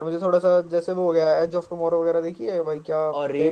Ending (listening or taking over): taking over